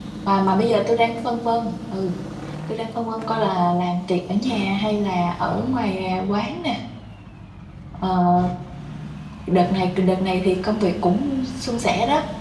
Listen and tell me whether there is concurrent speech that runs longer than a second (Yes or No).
No